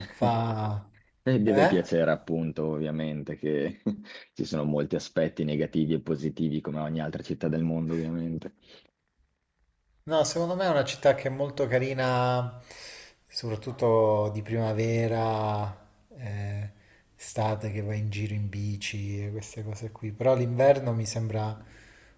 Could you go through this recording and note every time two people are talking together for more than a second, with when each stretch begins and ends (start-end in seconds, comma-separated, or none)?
none